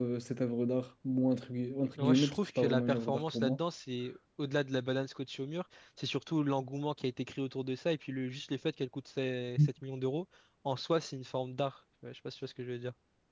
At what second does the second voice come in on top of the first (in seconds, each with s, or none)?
2.0 s